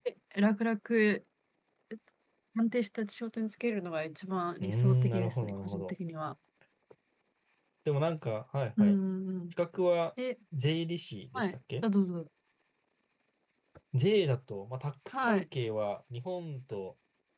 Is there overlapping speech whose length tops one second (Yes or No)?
Yes